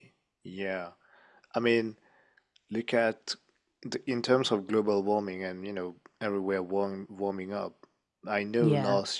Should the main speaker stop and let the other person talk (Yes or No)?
No